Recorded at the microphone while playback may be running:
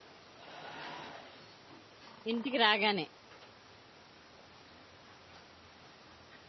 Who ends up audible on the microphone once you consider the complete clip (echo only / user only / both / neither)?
user only